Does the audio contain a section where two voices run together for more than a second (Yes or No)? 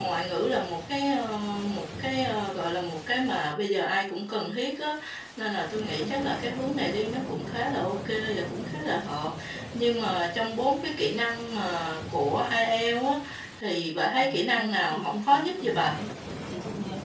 Yes